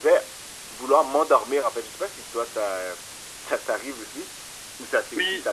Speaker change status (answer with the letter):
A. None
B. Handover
B